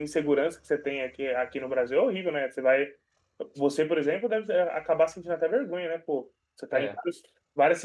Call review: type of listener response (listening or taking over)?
listening